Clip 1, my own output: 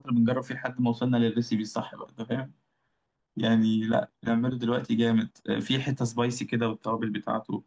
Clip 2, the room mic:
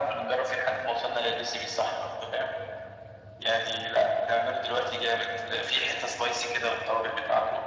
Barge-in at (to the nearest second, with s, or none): none